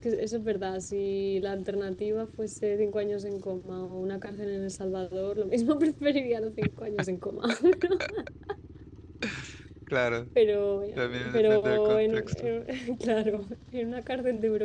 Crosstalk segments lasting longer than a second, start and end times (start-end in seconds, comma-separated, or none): 10.9-12.5